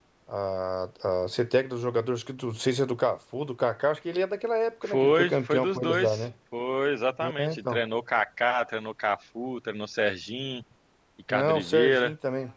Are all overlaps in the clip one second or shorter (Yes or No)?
No